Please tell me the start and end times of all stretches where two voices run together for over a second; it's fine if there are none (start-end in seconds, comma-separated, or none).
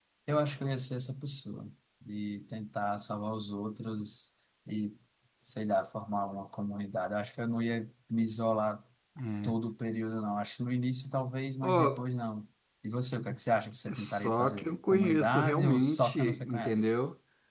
13.9-16.8